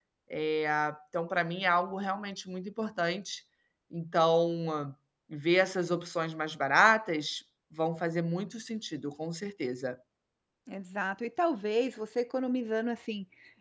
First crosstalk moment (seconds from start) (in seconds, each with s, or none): none